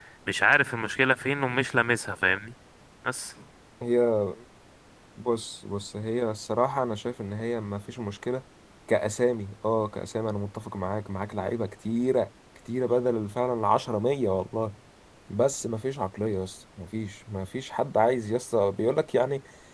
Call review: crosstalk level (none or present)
none